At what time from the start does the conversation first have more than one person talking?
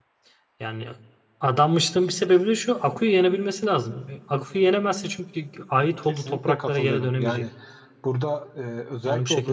6 s

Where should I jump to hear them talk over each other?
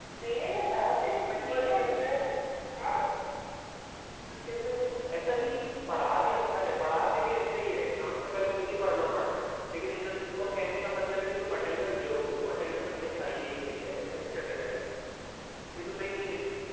1 s

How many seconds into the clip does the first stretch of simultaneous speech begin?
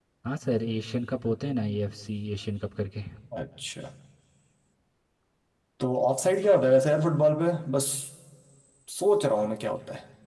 none

